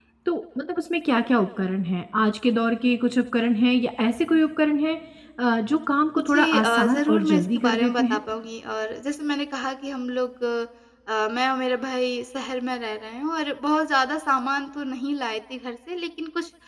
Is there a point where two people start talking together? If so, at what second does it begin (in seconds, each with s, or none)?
6.2 s